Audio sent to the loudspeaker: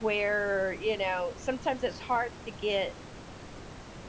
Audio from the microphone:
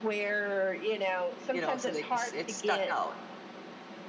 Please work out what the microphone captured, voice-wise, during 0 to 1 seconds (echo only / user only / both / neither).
echo only